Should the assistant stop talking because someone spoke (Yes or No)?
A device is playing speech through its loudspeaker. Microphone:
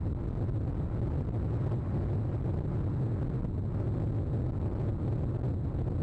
No